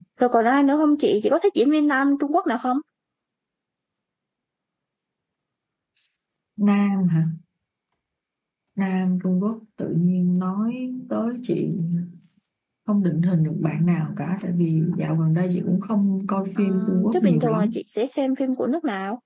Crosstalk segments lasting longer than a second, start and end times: 16.6-17.8

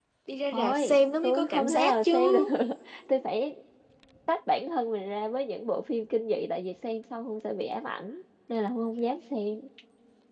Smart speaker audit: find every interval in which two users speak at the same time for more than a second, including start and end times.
0.5-2.4

